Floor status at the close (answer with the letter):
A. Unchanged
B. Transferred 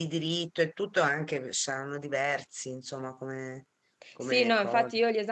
B